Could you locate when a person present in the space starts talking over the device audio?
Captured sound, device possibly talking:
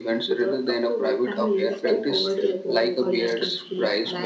1 s

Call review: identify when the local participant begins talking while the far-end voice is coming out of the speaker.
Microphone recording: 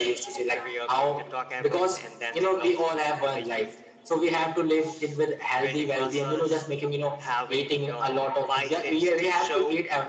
none

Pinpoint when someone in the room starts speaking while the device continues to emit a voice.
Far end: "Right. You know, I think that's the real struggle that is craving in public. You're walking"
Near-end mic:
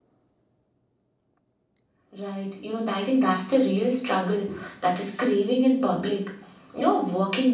none

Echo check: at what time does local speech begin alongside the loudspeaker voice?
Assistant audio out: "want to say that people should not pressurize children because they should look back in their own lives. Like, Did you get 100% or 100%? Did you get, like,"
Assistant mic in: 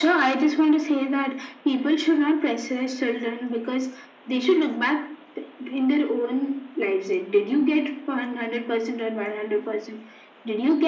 none

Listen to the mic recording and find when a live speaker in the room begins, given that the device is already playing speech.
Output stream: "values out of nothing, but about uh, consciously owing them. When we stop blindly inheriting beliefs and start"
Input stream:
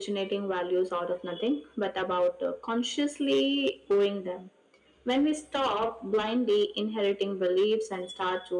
none

